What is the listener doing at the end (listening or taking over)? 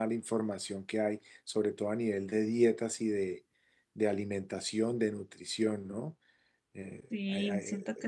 taking over